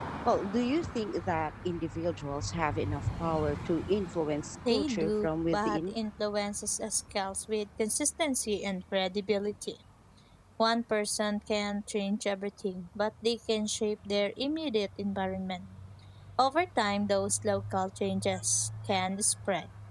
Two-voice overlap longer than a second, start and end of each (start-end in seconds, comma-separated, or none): 4.7-6.0